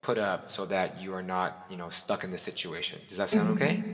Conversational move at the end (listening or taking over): taking over